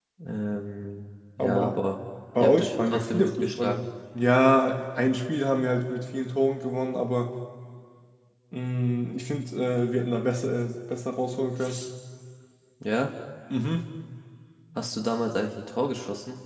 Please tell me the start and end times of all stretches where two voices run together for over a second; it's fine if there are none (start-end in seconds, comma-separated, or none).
2.4-3.9